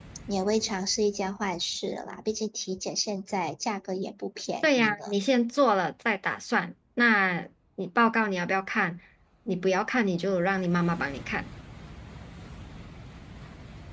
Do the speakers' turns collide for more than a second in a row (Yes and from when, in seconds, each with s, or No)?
No